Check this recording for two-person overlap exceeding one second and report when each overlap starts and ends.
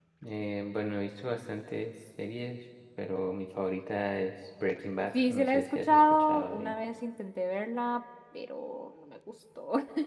5.1-6.7

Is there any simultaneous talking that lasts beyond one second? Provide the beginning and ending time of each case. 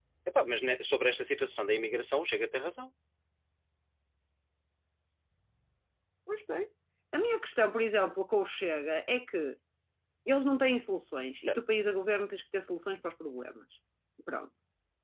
none

